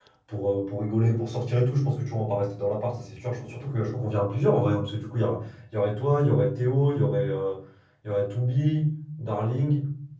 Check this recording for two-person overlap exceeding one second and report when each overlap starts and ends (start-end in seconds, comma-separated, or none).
none